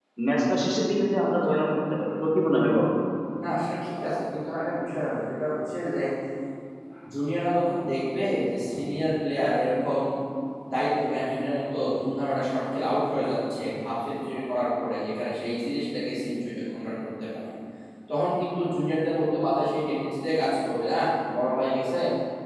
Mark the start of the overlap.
none

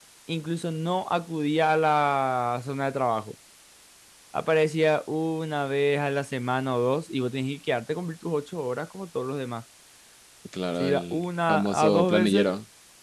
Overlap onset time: 11 s

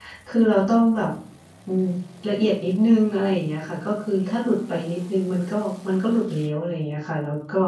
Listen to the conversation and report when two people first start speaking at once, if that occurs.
none

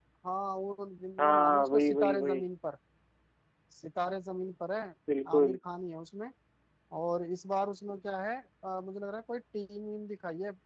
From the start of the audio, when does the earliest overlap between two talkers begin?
1 s

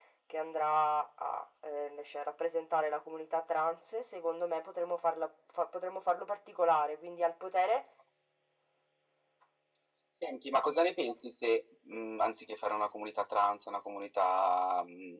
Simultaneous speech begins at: none

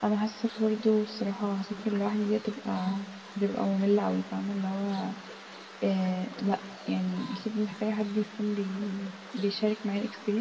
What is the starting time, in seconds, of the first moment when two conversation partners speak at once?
none

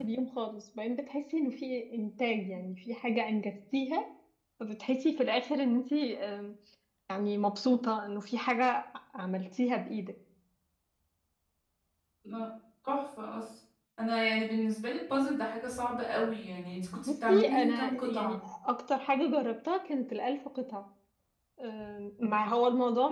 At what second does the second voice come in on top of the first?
17 s

